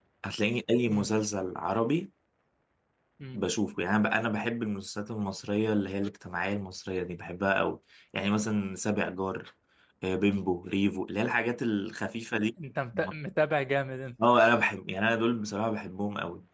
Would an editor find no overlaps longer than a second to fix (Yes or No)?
Yes